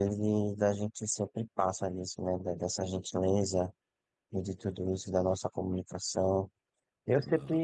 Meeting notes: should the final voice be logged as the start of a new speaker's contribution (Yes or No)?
No